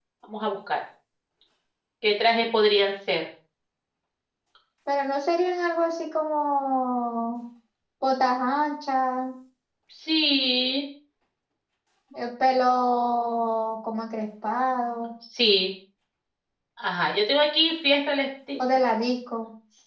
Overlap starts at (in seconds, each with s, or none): none